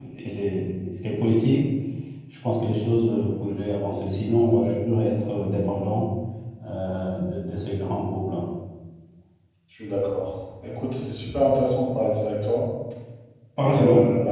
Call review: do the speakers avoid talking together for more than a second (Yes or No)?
Yes